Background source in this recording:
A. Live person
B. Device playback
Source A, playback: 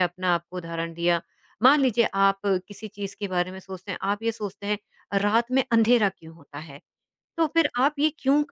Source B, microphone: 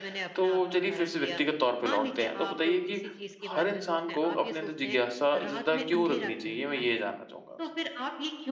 B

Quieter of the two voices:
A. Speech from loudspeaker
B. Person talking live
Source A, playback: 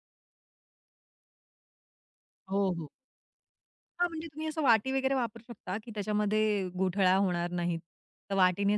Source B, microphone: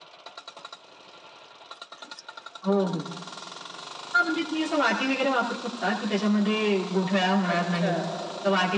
B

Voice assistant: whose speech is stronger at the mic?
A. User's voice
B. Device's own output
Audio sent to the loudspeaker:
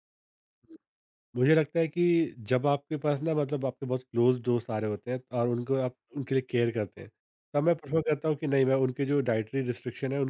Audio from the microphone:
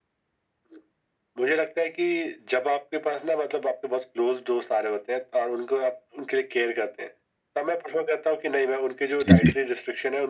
A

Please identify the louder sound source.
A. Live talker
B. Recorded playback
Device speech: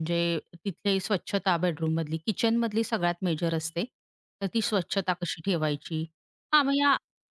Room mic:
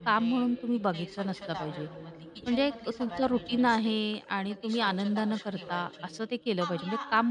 A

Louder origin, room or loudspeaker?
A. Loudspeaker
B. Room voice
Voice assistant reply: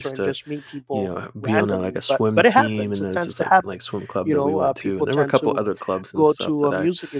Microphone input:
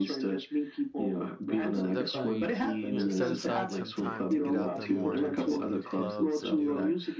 A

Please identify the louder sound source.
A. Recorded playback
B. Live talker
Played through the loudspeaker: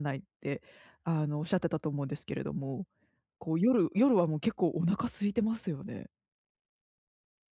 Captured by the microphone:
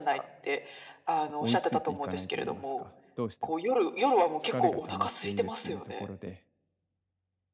A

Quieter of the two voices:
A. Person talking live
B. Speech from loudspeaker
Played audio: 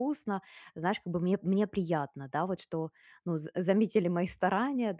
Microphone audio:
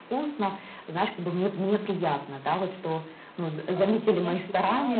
A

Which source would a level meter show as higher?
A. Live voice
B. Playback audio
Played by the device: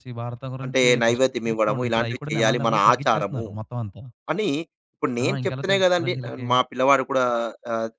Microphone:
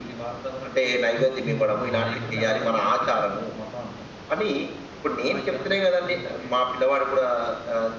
B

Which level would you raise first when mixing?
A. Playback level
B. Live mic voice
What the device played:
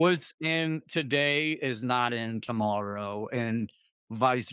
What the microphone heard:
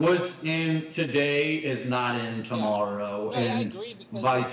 B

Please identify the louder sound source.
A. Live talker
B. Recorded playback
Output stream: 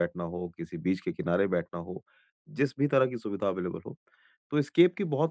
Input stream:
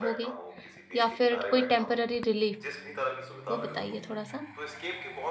A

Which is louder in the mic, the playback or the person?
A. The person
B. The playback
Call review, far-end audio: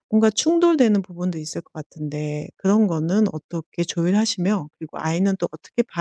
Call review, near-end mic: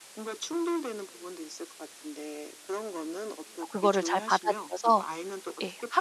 A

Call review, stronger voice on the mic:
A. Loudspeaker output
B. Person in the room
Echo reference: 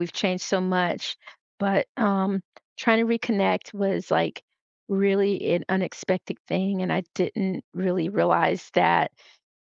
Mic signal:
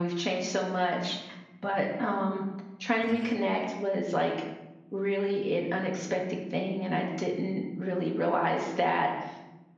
A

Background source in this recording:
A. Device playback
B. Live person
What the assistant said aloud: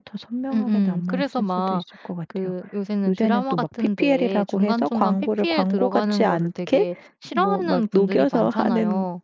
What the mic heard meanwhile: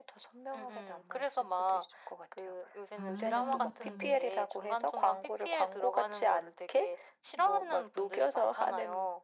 B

